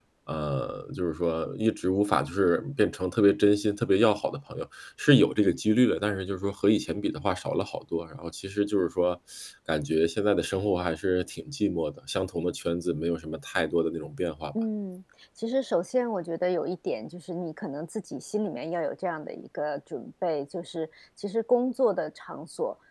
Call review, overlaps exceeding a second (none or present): none